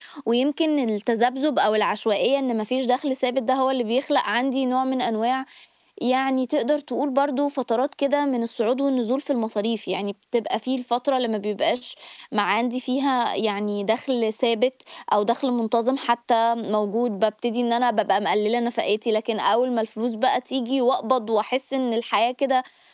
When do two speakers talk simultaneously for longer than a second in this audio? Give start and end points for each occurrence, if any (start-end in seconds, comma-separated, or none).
none